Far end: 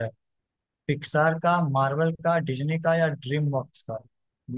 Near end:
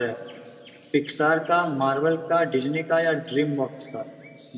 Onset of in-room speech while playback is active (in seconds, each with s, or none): none